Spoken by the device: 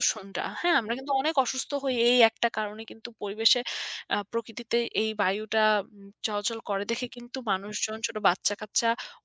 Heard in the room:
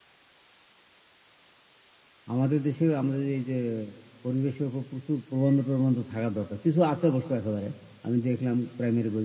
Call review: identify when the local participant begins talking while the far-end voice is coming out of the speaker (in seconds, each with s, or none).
2.3 s